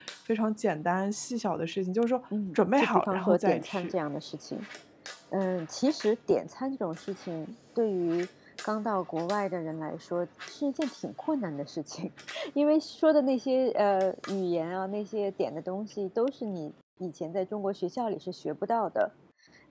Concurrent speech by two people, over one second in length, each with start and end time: 2.5-3.9

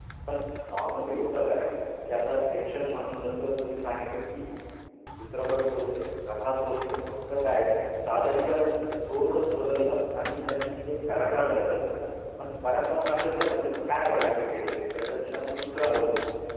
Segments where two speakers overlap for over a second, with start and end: none

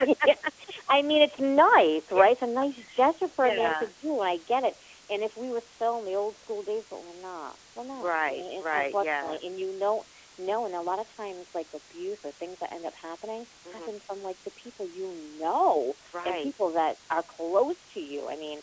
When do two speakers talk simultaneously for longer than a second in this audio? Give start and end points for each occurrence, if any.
7.9-9.4

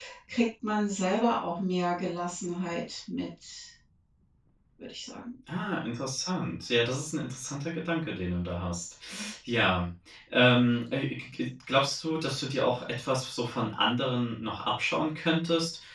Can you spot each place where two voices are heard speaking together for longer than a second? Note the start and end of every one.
none

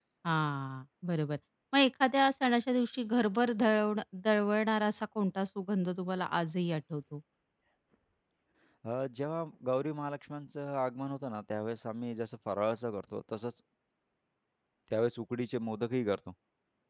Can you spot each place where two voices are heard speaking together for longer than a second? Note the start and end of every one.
none

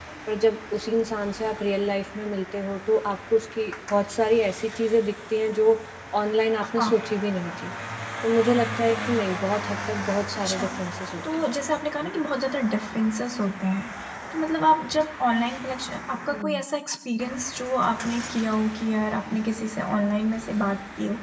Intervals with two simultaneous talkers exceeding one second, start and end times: none

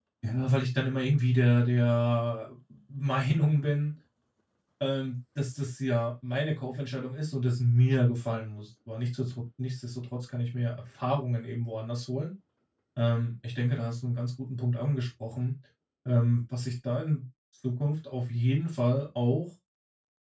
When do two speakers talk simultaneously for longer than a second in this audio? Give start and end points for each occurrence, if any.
none

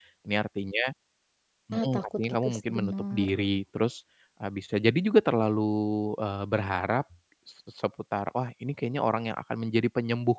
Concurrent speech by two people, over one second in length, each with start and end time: 1.8-3.3

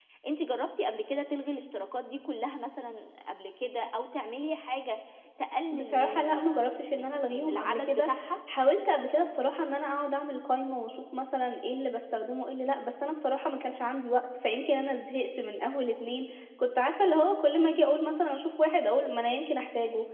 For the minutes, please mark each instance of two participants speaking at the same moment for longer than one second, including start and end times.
5.7-8.1

